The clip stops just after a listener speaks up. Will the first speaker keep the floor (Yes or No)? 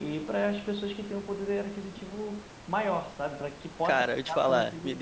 No